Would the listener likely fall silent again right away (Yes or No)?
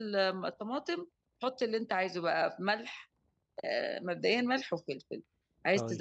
Yes